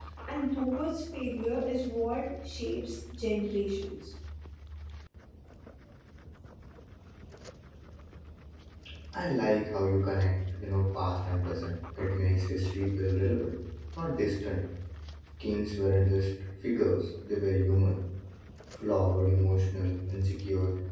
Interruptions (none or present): none